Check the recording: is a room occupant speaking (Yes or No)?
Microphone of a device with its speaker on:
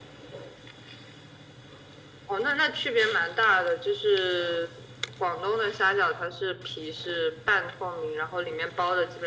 No